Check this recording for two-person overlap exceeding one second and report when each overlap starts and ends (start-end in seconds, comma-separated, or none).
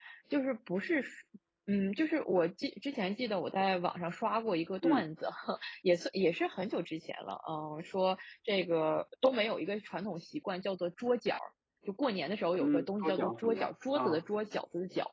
12.6-14.2